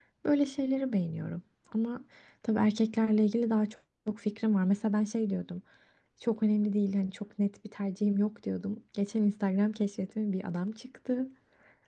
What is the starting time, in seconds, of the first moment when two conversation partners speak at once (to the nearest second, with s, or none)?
none